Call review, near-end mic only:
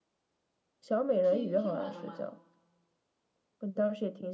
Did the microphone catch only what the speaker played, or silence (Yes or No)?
No